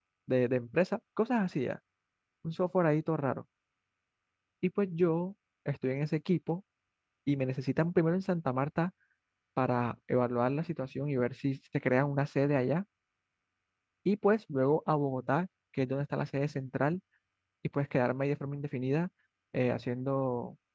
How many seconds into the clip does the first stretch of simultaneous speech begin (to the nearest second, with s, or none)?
none